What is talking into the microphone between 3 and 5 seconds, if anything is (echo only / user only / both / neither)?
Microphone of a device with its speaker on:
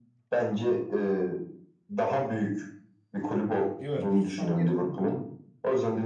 both